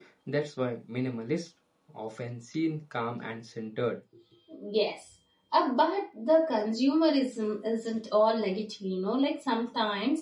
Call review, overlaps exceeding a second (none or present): none